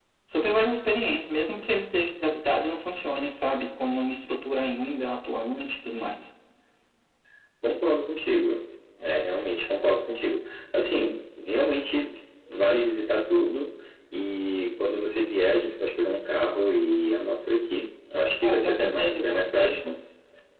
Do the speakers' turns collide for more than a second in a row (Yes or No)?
Yes